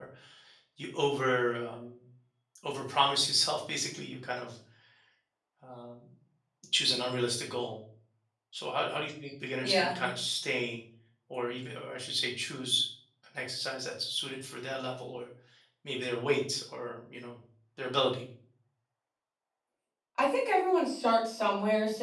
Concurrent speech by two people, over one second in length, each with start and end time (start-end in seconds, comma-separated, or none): none